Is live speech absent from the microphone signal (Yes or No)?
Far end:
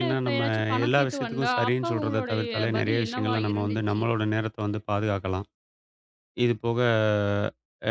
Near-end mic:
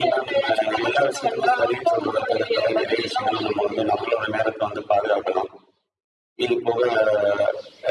Yes